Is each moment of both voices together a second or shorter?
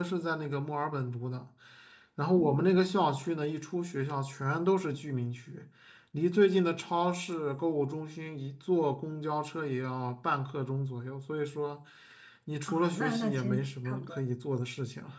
No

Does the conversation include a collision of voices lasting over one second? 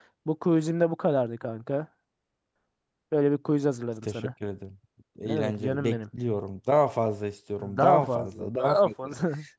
Yes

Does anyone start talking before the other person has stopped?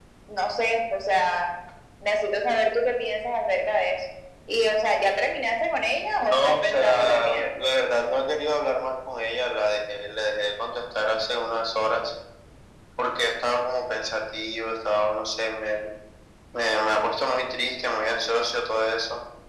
Yes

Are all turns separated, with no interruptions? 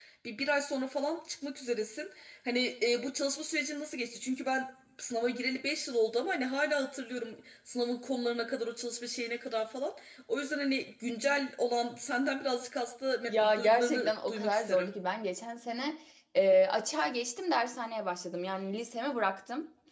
No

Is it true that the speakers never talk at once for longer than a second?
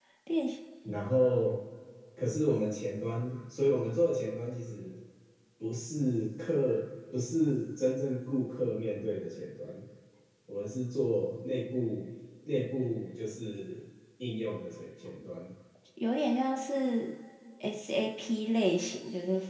Yes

